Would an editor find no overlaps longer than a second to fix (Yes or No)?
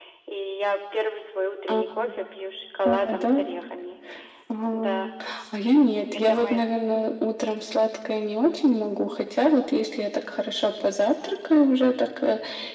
Yes